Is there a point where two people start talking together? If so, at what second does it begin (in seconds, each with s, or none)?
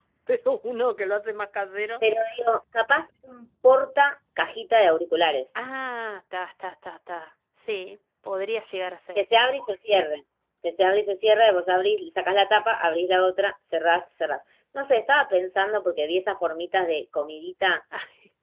none